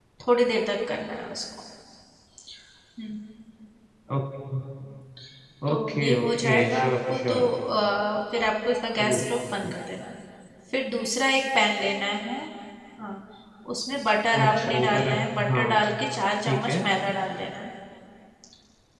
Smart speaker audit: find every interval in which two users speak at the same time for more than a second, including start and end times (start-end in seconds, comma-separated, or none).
5.7-7.5, 14.4-15.7